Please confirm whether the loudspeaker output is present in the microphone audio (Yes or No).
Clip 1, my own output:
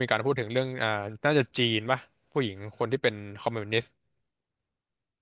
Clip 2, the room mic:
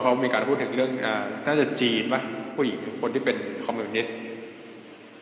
Yes